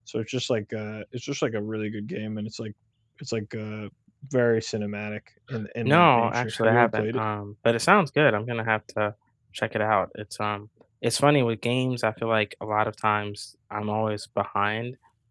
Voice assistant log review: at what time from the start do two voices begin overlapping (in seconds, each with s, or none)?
5.8 s